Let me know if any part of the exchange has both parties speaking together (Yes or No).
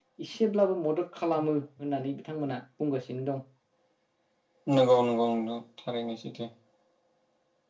No